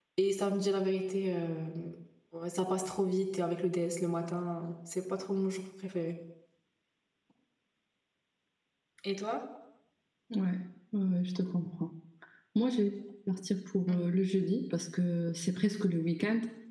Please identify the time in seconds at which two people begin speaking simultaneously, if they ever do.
none

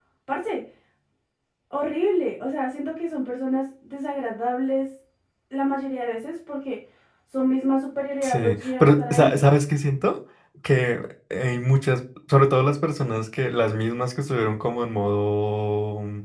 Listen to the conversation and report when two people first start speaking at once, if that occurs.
8.2 s

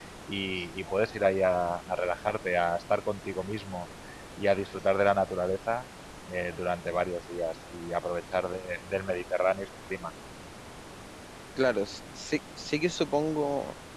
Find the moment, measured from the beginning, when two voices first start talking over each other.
none

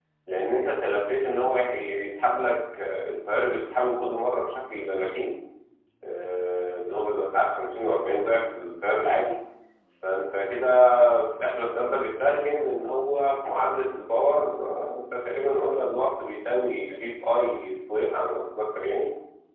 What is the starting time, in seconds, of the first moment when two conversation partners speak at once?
none

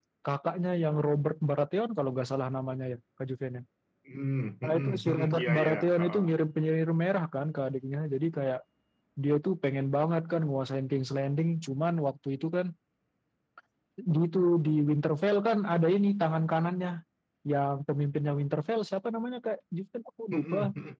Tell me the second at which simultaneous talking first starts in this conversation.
4.6 s

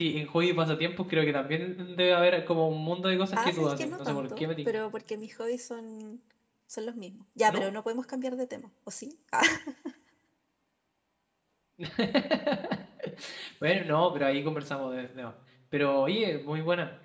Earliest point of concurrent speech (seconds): 3.4 s

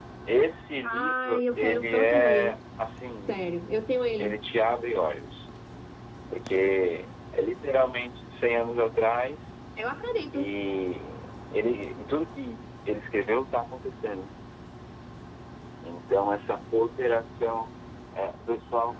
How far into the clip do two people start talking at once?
0.8 s

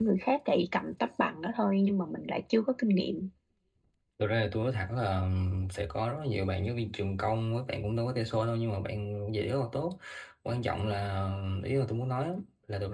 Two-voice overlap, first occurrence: none

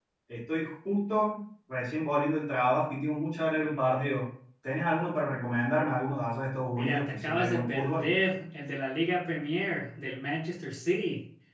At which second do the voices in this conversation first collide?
6.7 s

